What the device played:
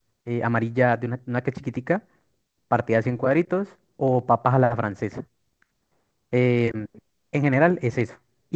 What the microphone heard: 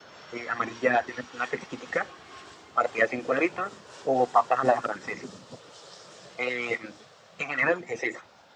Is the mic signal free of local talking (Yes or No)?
Yes